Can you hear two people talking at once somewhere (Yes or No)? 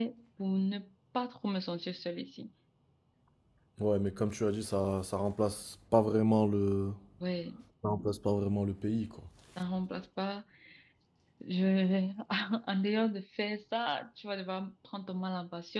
No